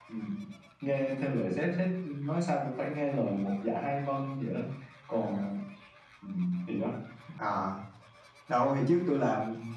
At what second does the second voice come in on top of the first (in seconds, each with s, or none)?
none